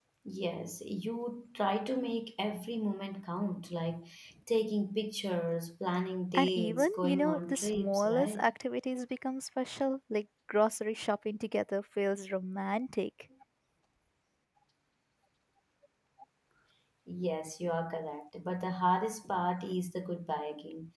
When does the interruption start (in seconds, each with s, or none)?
6.3 s